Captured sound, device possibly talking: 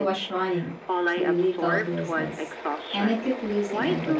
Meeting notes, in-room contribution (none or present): present